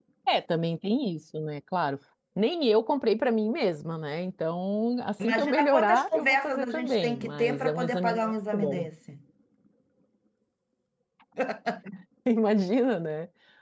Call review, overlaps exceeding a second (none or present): present